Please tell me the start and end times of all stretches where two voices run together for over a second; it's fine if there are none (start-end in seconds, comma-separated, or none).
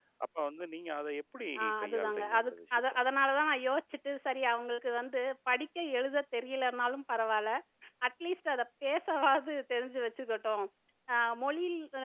1.6-2.9